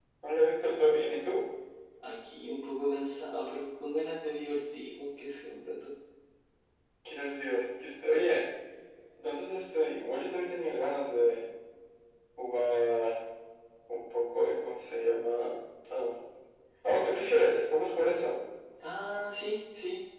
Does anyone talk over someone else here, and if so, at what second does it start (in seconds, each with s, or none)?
none